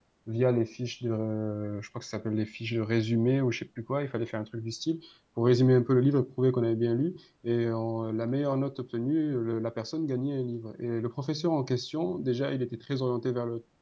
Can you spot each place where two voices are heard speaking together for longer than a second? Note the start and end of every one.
none

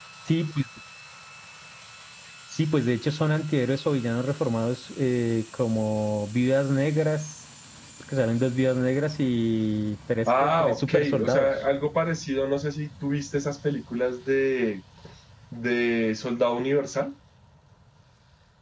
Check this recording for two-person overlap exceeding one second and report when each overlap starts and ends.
10.3-11.5

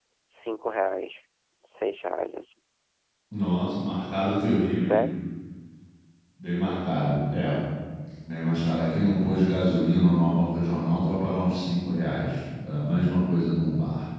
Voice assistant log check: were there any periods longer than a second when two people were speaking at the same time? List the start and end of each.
none

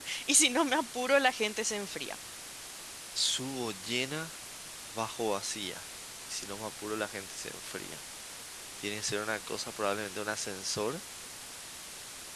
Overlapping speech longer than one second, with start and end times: none

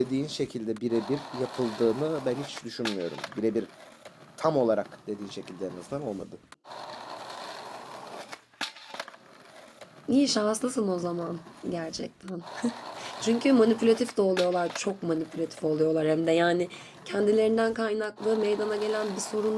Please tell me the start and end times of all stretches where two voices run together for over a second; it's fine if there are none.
none

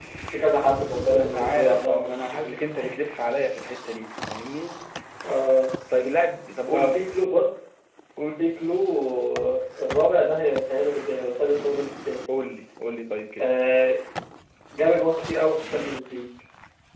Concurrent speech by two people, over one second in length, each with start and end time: 1.1-2.6

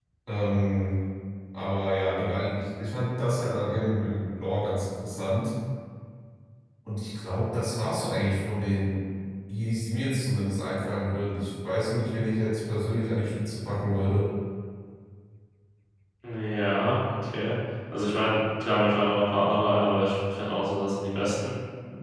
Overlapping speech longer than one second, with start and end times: none

